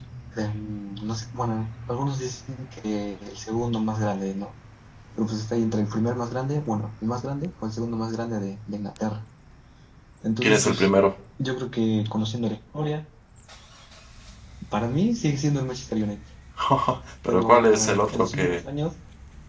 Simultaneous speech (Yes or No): Yes